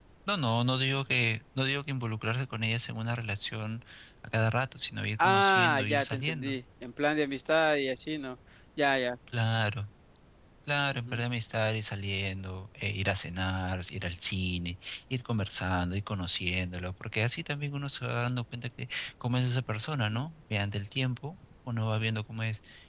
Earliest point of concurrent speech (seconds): 5.2 s

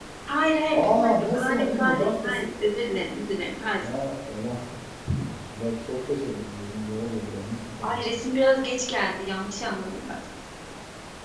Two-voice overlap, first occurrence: 0.7 s

